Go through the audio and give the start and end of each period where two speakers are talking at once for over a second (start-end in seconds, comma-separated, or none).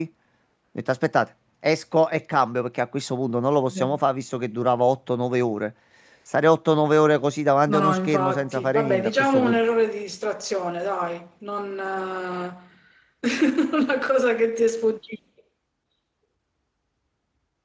7.7-9.6